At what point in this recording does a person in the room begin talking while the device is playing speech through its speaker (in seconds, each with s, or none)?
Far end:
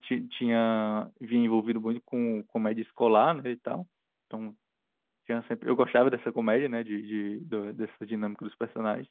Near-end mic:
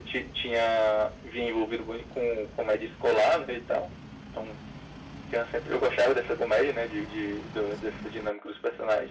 none